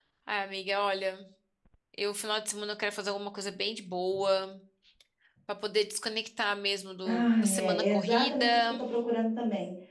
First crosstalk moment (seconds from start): 7.0 s

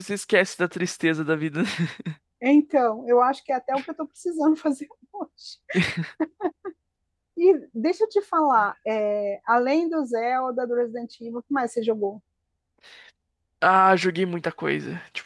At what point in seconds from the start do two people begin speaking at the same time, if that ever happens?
none

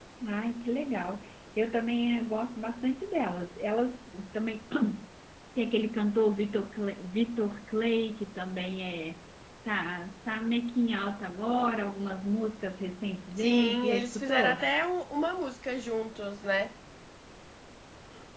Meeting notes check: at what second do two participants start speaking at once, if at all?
13.4 s

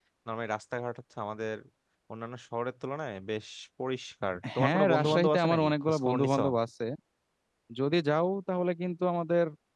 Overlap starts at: 4.4 s

